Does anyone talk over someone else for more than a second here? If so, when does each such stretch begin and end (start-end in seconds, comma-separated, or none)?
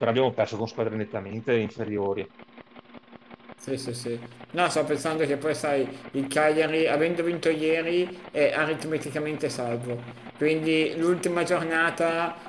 none